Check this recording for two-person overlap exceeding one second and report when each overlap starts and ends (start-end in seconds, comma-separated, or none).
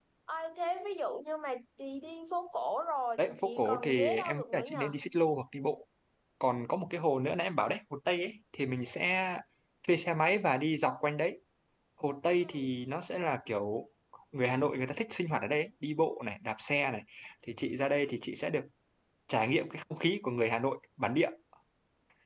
3.2-4.9